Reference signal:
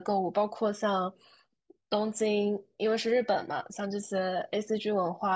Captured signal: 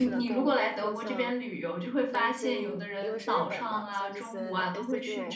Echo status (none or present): present